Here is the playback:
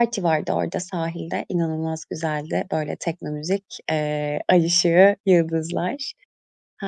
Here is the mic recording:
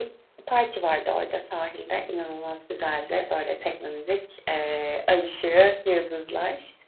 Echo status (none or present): present